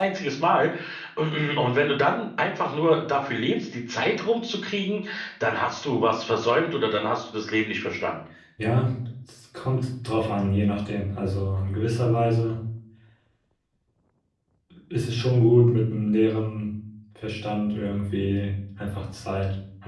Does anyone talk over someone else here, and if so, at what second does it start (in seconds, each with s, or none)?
none